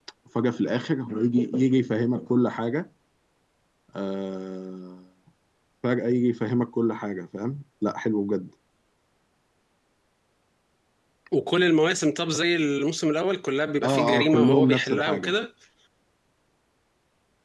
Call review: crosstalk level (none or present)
present